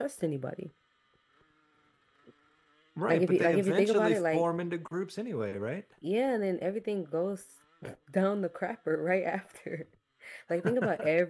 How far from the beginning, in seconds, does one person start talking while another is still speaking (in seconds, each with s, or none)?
3.1 s